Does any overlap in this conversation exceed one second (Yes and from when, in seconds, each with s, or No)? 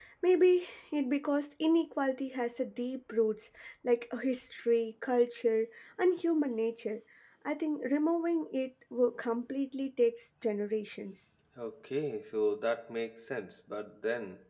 No